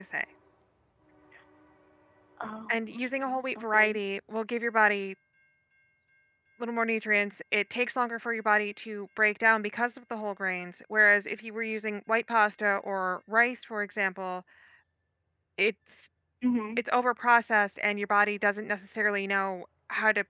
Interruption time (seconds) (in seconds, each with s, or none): 2.7 s